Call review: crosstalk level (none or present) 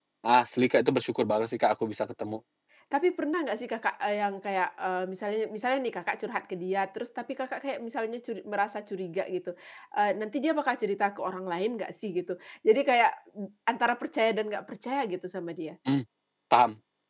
none